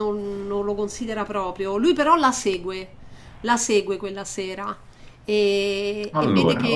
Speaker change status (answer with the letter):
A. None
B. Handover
A